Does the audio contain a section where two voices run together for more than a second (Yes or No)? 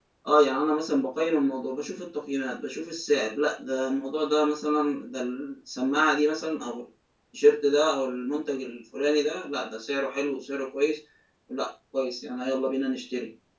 No